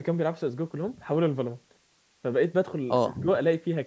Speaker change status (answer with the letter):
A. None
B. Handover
A